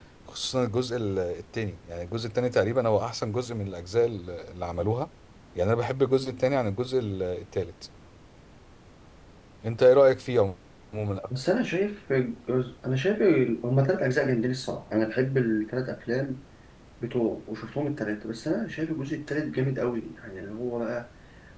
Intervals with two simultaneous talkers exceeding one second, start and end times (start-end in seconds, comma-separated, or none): none